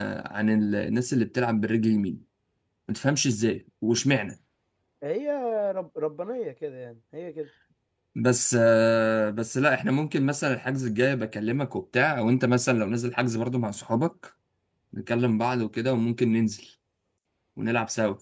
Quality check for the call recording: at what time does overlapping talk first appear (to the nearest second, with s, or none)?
none